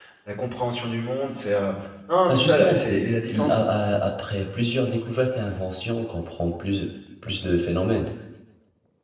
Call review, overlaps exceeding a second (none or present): present